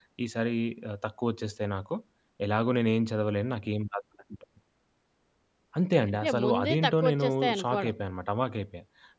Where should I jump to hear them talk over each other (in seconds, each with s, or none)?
6.1 s